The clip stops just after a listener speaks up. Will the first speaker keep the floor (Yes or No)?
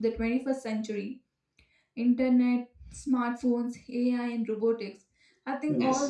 Yes